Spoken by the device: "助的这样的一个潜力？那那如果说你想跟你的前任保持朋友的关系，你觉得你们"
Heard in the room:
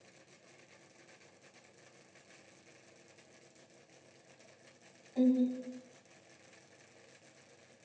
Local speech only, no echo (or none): 嗯